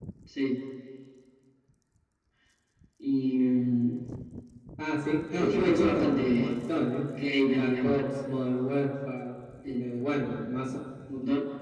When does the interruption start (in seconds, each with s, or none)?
5.3 s